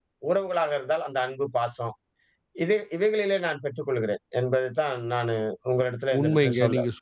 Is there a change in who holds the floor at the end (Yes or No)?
Yes